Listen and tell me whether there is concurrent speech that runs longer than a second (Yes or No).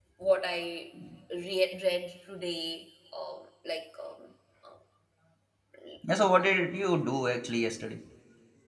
No